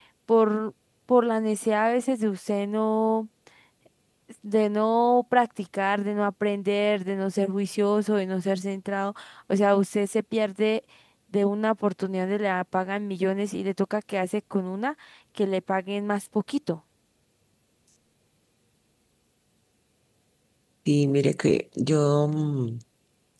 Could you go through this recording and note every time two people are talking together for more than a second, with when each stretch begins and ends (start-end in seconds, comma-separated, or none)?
none